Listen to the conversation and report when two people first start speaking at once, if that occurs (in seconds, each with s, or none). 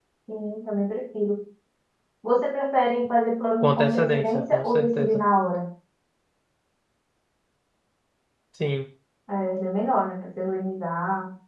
3.6 s